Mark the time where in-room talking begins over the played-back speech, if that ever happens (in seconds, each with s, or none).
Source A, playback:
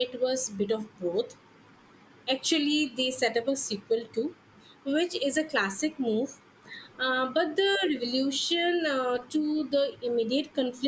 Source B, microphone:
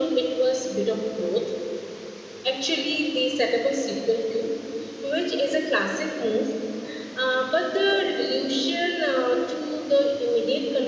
none